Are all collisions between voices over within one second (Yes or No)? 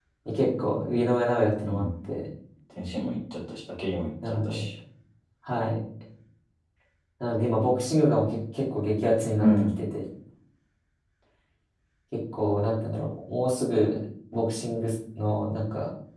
Yes